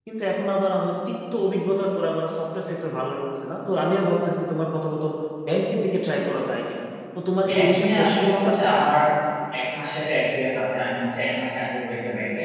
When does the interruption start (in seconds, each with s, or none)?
7.4 s